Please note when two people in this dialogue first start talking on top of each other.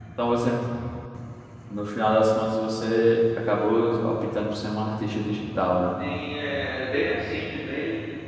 none

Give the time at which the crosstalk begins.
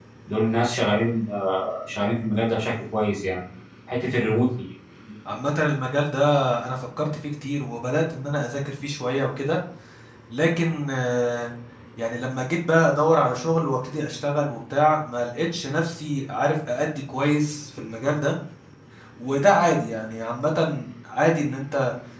none

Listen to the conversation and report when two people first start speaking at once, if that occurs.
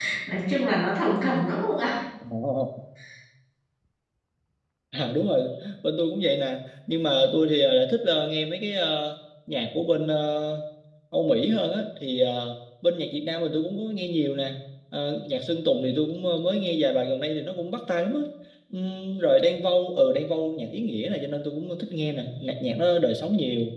none

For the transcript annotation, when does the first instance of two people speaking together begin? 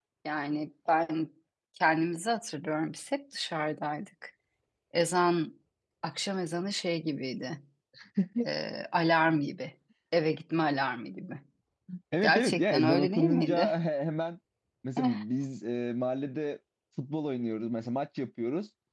12 s

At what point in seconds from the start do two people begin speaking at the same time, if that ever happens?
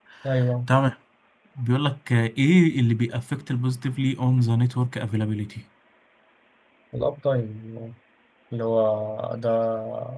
none

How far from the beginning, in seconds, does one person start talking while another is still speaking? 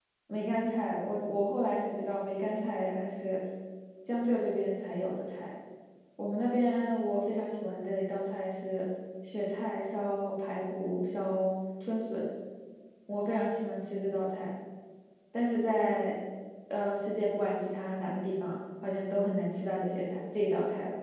none

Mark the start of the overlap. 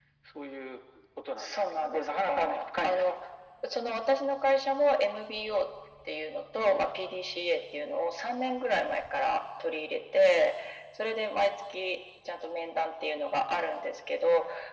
1 s

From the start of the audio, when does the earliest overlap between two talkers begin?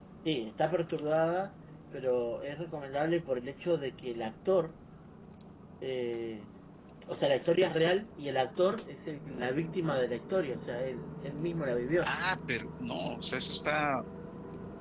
none

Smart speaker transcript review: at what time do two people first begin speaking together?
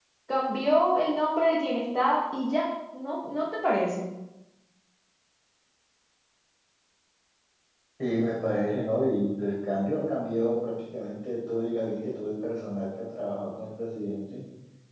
none

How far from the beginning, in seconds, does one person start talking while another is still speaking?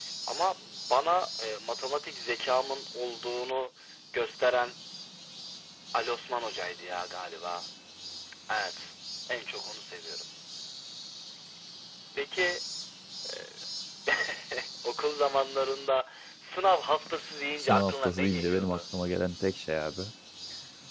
18 s

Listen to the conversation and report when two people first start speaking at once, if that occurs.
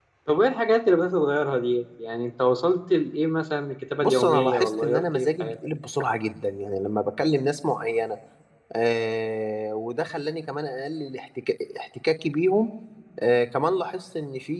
4 s

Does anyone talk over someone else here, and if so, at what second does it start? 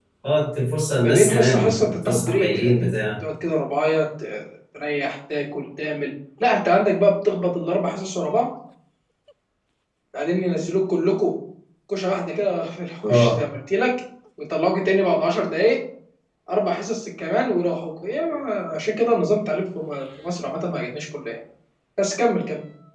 1 s

